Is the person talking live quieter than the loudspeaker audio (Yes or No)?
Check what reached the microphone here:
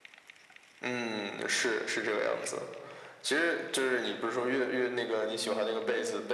Yes